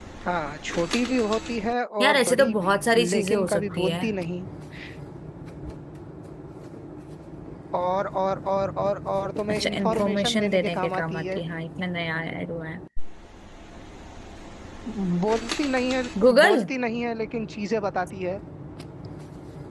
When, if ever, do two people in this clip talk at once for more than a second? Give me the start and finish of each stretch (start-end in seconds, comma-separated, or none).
2.0-4.0, 9.5-11.4